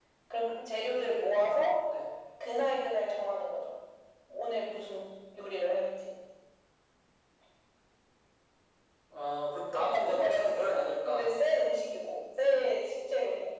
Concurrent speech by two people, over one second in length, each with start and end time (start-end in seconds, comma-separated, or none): 9.9-11.3